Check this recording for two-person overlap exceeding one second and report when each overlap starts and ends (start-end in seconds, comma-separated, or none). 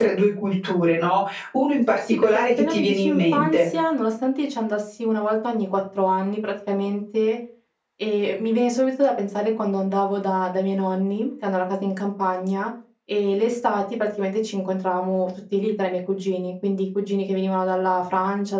2.1-3.7